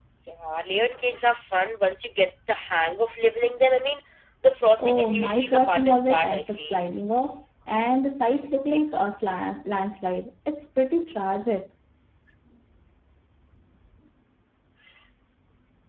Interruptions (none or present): present